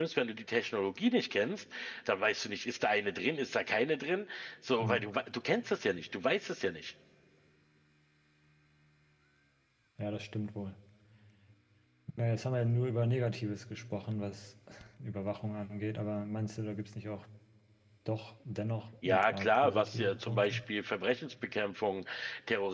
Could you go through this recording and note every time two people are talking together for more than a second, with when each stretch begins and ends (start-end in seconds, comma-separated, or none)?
19.0-20.6